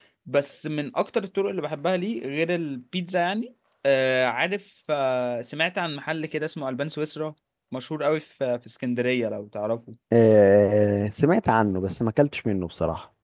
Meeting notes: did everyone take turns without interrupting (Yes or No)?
Yes